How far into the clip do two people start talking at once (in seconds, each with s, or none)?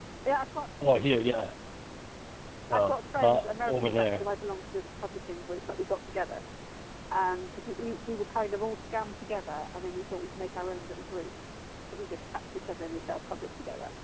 2.7 s